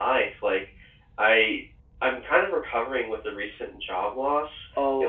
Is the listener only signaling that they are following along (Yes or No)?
Yes